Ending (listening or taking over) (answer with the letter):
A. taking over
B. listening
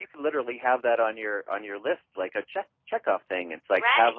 A